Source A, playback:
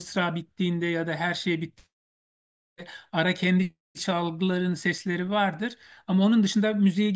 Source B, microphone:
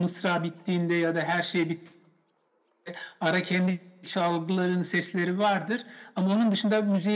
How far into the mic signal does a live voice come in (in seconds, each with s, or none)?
none